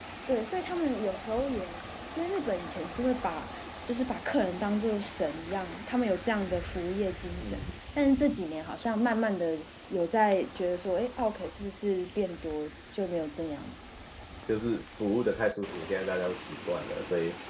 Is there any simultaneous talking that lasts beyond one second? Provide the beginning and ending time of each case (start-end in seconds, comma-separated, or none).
none